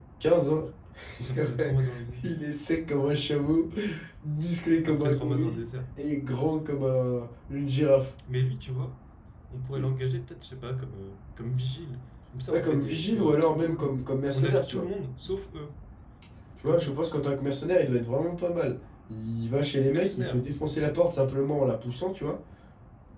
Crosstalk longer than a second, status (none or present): present